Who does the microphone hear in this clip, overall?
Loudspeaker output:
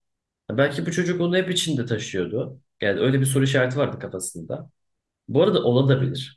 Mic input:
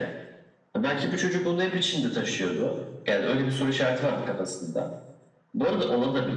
echo only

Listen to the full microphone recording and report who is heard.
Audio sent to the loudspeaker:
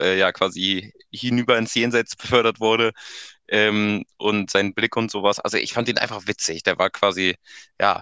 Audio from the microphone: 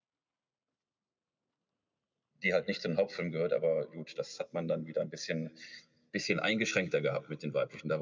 user only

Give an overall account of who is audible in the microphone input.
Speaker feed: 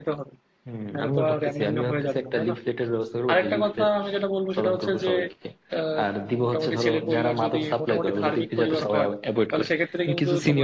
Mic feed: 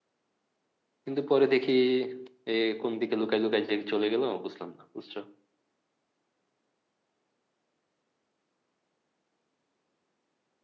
user only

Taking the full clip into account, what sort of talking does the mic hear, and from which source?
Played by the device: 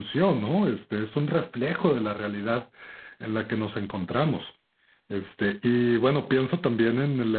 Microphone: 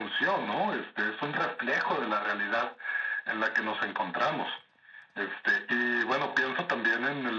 echo only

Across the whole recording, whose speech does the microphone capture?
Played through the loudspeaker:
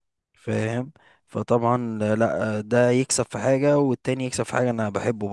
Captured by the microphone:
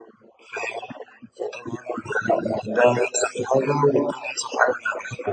echo only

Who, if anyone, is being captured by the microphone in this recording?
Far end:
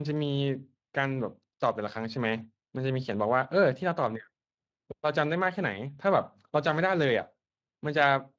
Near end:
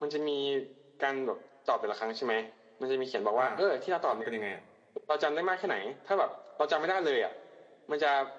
both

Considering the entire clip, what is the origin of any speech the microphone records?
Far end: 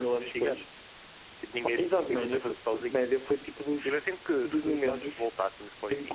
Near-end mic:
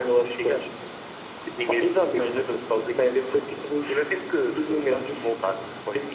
echo only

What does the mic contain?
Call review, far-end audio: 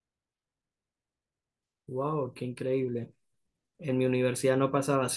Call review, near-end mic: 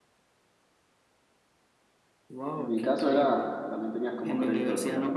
both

